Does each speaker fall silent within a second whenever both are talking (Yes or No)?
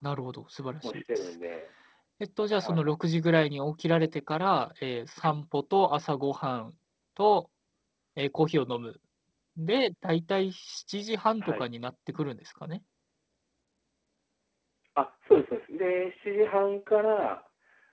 Yes